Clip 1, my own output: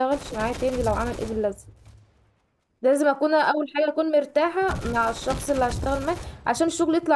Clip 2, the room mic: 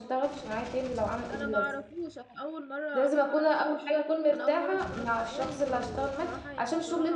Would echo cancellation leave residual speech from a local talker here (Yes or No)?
Yes